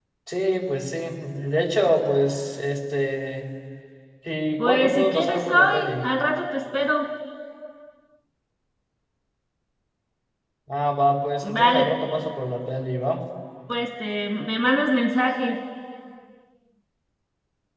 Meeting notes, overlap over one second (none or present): present